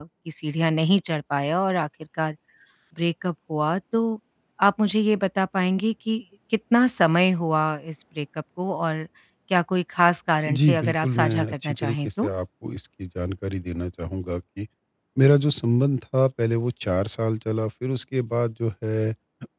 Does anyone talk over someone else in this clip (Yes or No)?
Yes